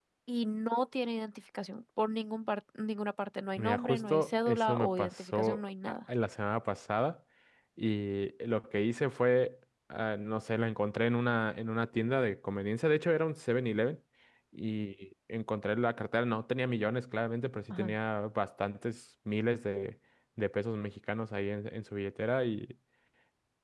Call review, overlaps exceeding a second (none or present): present